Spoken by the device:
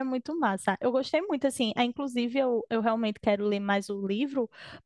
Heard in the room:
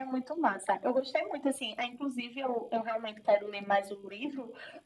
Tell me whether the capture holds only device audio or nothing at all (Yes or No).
Yes